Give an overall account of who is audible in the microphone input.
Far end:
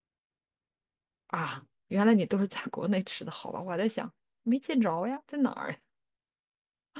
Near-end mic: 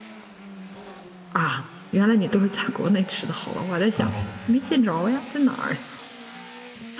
both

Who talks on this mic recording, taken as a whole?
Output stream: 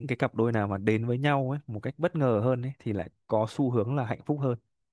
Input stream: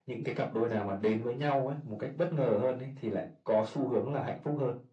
echo only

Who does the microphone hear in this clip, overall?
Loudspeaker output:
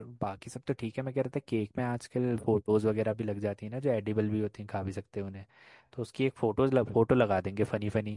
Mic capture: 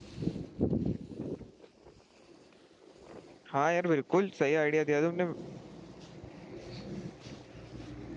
user only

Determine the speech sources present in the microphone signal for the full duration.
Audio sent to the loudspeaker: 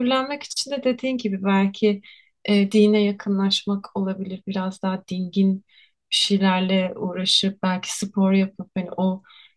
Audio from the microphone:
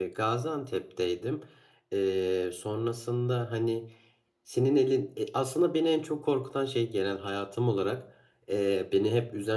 user only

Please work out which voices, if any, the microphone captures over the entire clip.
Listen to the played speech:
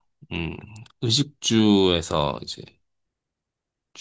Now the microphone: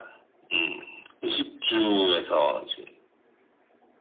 echo only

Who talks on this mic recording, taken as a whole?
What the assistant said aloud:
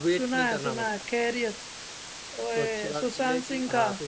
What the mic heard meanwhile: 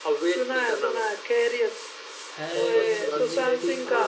both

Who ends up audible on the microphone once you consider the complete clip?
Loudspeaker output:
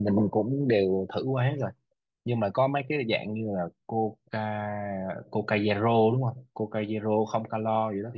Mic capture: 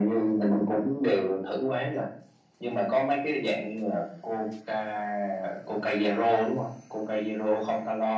echo only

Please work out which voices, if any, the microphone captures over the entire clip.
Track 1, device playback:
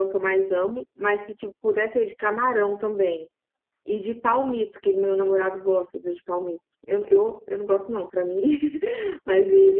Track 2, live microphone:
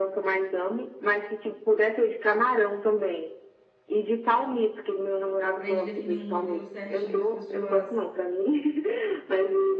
both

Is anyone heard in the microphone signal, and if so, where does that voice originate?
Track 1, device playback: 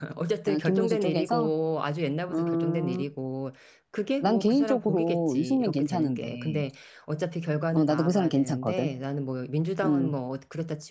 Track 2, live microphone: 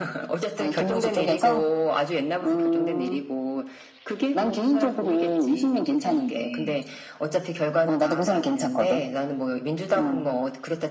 echo only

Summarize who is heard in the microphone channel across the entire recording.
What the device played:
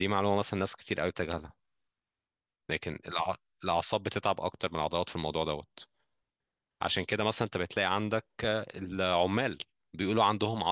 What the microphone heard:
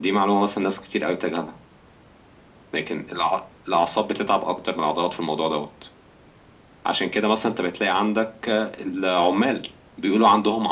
echo only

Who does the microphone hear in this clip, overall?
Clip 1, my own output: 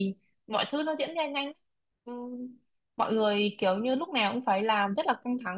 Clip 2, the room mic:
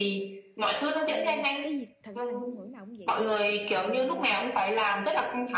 both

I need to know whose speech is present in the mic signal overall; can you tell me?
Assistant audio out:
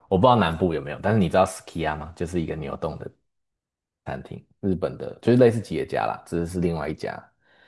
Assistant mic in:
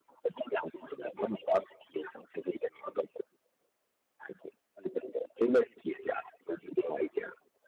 echo only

